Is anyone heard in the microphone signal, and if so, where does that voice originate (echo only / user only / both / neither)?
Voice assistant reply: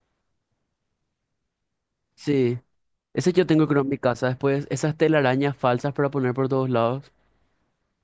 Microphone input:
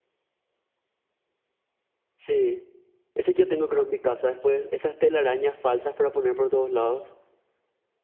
echo only